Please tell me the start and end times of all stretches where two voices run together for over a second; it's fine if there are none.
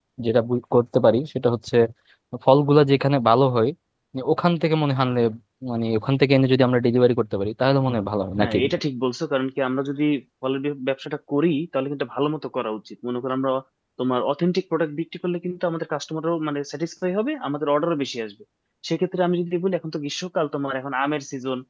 none

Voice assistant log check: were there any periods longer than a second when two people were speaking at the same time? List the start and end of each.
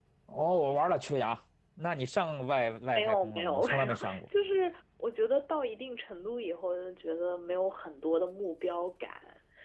3.0-4.2

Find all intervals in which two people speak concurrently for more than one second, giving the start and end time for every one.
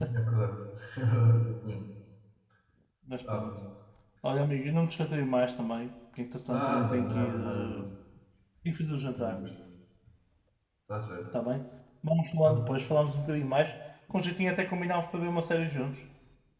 6.5-7.8

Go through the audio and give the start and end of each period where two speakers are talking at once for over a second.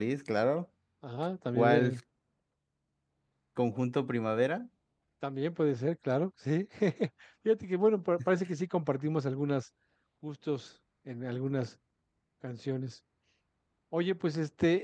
none

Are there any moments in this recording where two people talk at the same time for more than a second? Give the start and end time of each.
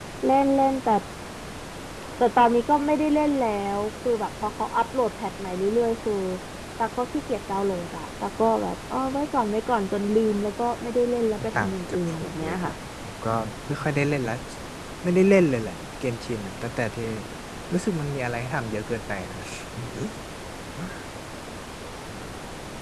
11.4-12.7

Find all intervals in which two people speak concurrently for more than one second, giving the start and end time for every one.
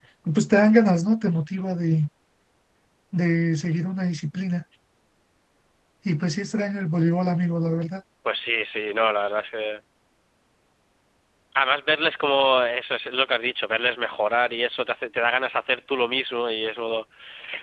none

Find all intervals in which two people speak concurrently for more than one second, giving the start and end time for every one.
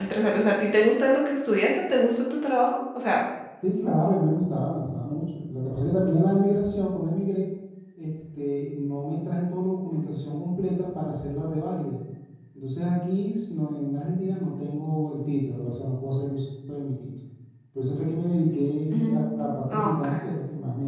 18.9-20.3

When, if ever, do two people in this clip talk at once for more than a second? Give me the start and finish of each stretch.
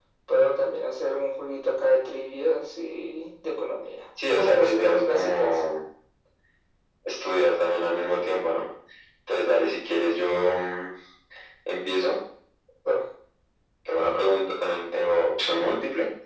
4.3-5.6

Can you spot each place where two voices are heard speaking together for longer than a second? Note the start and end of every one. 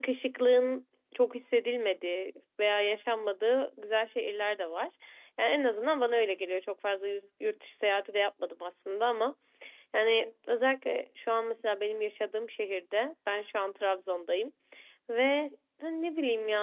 none

